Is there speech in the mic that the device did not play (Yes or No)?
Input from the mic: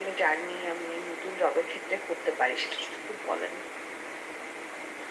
No